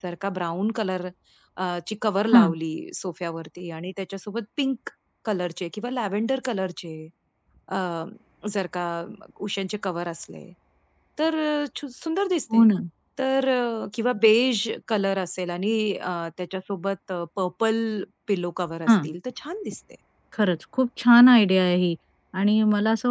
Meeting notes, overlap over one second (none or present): none